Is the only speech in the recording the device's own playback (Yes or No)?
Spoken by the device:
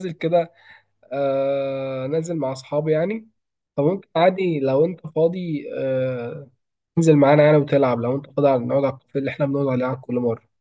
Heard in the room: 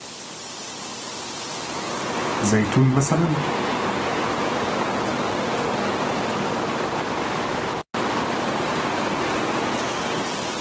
No